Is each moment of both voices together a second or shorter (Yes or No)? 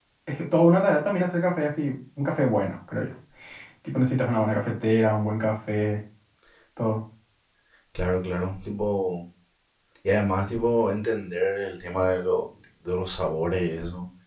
Yes